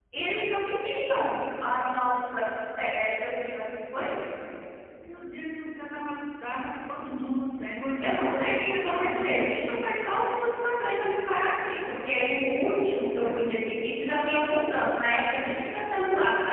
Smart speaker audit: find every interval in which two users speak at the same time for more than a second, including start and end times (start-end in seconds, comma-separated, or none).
8.0-9.4